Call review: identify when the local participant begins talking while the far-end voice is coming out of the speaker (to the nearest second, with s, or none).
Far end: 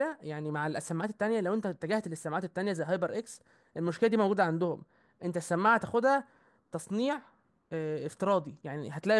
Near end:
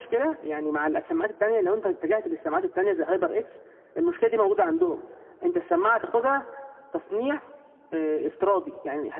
none